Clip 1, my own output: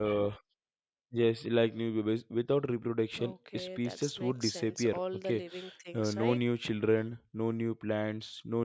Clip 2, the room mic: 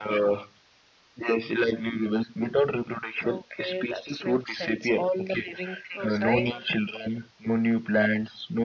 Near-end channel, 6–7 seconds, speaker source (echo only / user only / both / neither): both